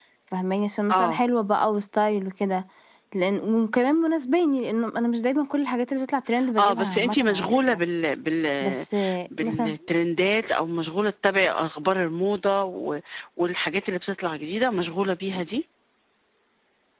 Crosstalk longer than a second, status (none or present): present